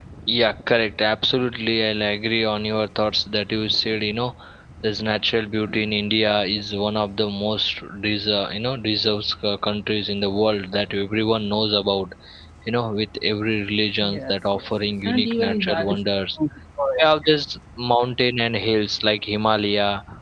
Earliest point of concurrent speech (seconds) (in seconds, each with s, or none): 14.0 s